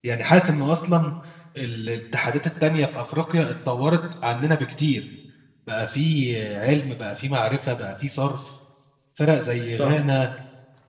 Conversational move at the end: listening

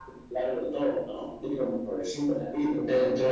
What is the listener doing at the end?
taking over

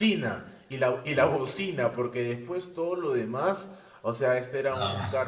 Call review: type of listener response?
listening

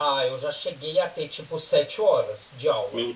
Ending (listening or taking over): listening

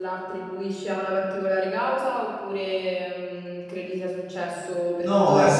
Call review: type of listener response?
taking over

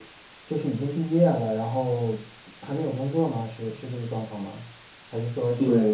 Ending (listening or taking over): taking over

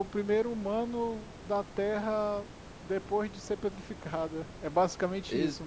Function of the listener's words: taking over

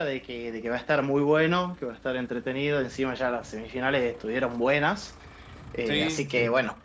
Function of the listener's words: listening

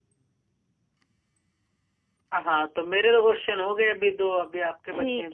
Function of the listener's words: taking over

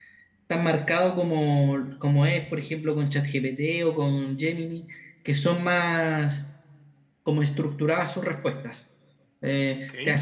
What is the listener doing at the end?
listening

